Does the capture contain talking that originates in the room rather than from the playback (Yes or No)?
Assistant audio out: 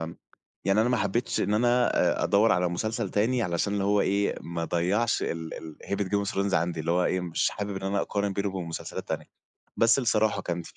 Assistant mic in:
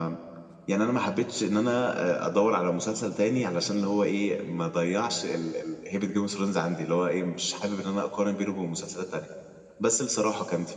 No